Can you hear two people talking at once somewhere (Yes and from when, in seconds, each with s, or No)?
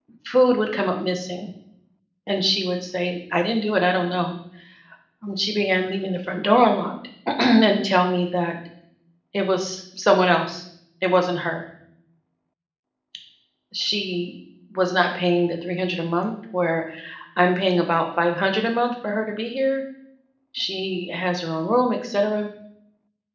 No